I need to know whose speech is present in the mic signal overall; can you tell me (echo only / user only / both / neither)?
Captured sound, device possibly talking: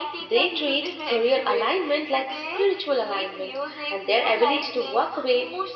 echo only